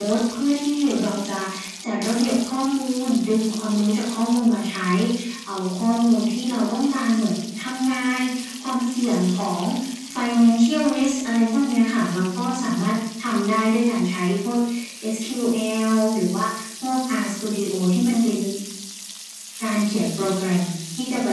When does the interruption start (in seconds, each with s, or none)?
none